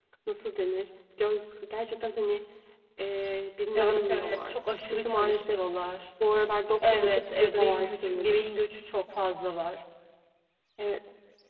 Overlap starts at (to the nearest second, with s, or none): 4 s